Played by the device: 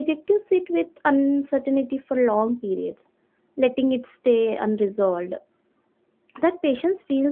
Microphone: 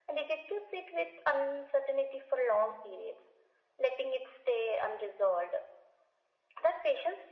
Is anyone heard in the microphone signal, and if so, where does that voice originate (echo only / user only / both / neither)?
echo only